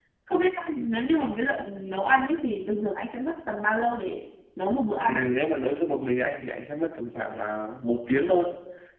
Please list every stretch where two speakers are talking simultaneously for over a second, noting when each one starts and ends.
none

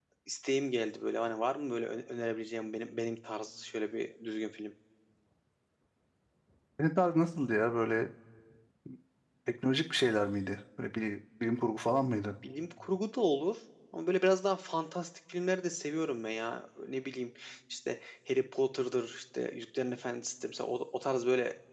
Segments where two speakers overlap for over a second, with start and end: none

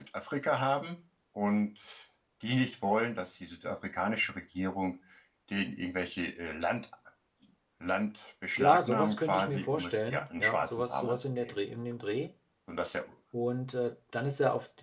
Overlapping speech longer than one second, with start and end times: 8.6-11.6

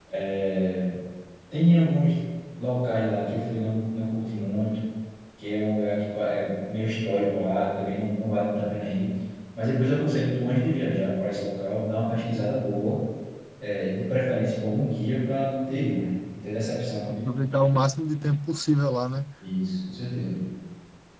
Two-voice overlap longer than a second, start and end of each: none

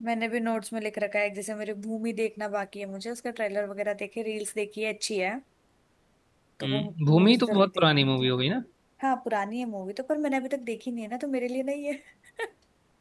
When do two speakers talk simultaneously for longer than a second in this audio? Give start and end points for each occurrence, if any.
6.6-8.2

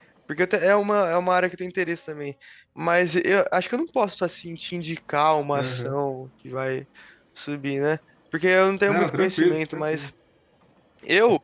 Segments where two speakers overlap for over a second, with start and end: 8.9-10.1

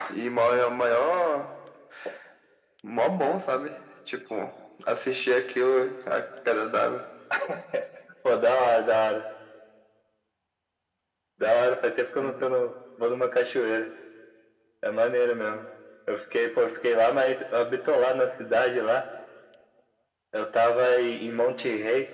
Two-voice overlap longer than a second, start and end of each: none

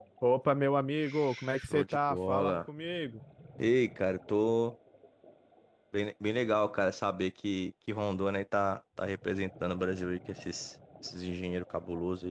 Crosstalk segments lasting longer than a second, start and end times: 1.0-2.6

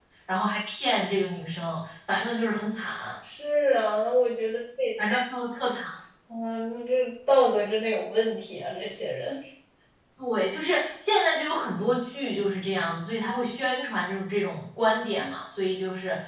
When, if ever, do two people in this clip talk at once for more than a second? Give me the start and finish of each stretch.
none

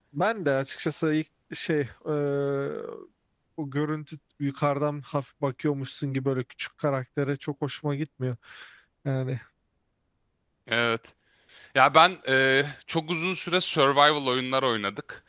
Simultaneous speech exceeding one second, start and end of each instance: none

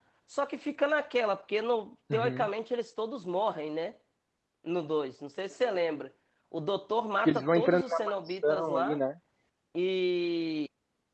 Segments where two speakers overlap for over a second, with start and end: 7.2-9.0

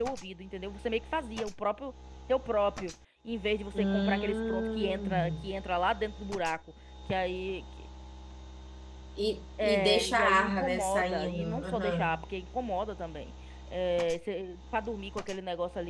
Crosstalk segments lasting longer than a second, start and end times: 3.7-5.5, 9.6-12.1

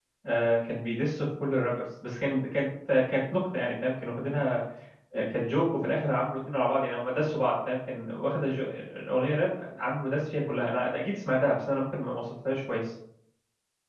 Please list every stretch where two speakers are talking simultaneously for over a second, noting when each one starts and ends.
none

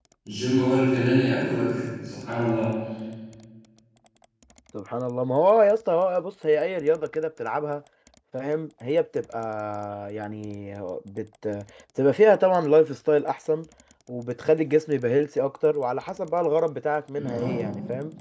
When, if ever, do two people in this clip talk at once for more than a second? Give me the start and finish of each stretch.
none

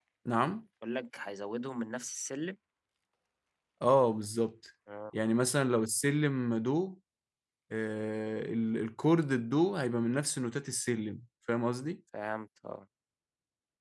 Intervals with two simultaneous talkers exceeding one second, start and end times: none

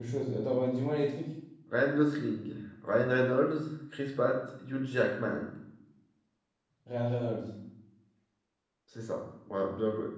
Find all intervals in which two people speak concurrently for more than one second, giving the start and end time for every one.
none

